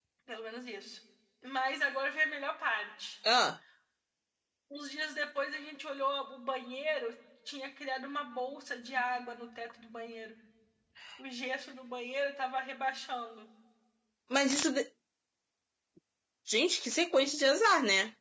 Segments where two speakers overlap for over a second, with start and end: none

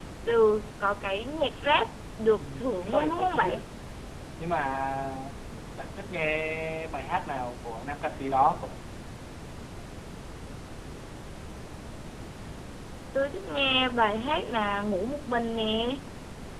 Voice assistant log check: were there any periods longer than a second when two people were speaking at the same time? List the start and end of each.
2.4-3.6

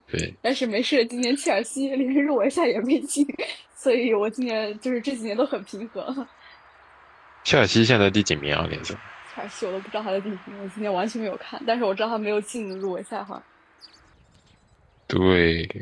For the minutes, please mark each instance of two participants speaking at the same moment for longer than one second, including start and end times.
none

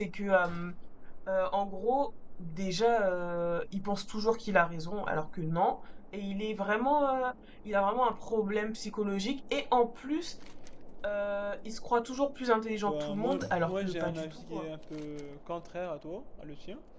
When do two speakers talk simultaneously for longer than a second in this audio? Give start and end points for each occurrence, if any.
12.8-14.6

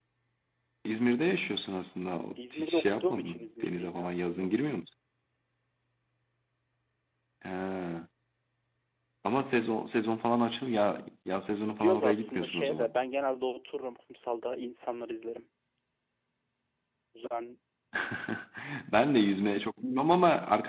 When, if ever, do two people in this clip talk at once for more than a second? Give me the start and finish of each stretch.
2.4-4.5, 11.6-12.9

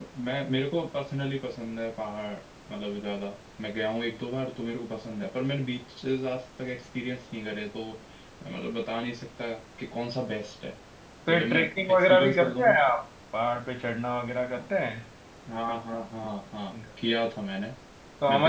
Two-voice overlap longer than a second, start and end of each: 11.3-12.8

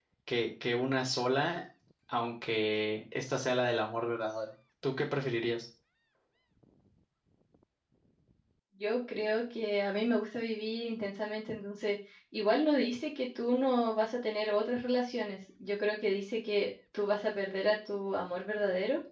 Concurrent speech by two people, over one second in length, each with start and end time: none

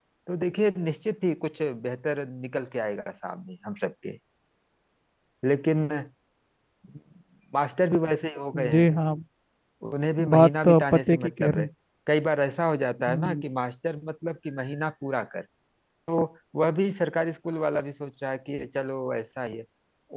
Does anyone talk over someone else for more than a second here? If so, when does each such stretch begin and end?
10.3-11.7

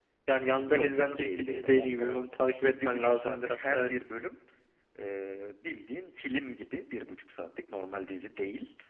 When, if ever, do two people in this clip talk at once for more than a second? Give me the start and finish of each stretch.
0.7-2.2, 2.6-3.9

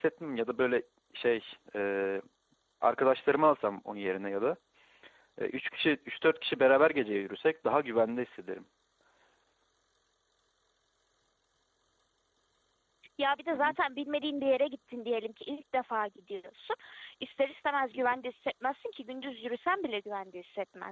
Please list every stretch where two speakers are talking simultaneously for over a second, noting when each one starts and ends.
none

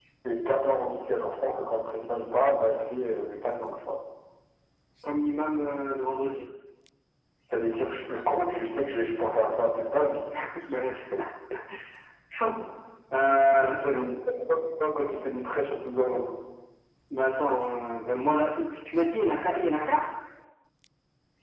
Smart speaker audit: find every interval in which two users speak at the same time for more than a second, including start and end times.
none

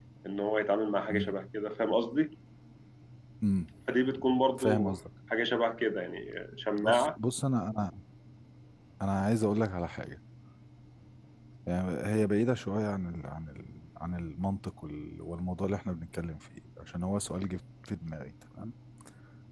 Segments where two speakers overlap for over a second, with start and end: none

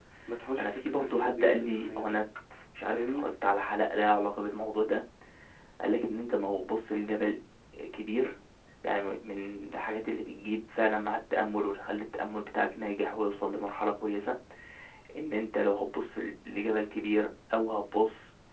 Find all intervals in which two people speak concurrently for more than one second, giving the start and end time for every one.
0.6-2.2

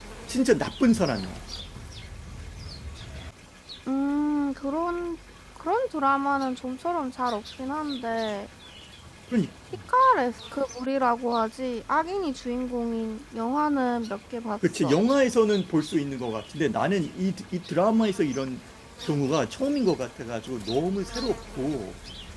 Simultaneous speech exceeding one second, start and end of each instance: none

